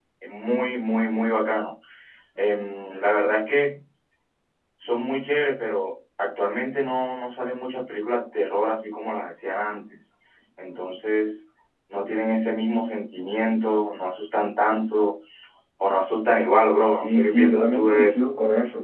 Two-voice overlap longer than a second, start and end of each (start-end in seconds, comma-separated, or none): 17.0-18.2